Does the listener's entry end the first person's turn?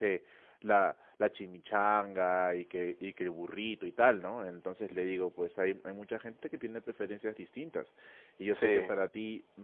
No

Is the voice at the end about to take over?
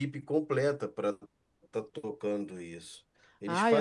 No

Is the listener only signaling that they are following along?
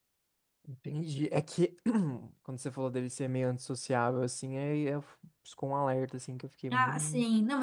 No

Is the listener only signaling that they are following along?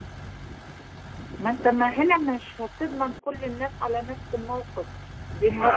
No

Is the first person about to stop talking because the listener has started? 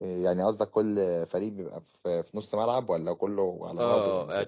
Yes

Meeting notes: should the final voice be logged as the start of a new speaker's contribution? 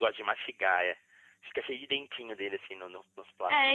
Yes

